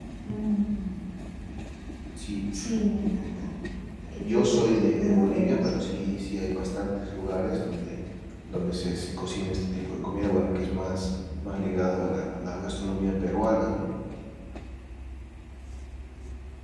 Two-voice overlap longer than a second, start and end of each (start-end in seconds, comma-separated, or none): 4.2-5.7